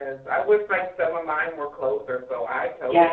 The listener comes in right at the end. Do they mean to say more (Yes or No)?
Yes